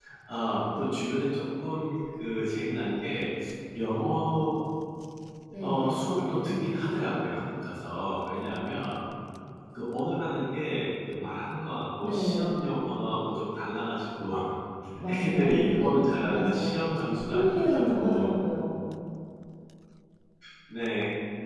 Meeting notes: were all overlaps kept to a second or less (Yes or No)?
No